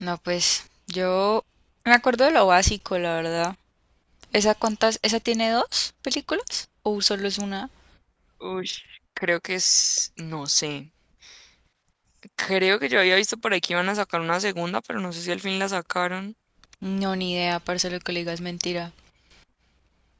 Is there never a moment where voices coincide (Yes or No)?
Yes